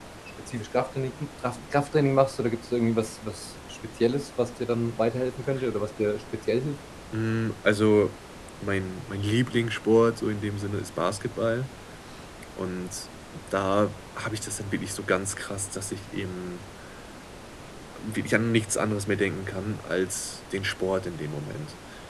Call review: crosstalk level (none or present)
none